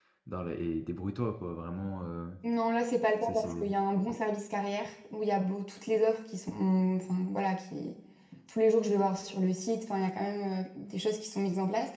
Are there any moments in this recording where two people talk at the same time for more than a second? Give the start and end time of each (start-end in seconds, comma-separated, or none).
none